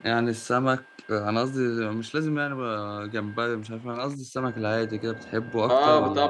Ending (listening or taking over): taking over